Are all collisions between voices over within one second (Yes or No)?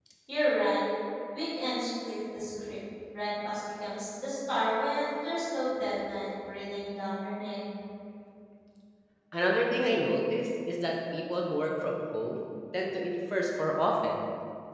Yes